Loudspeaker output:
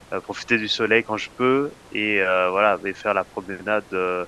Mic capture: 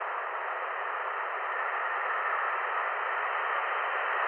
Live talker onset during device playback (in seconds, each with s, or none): none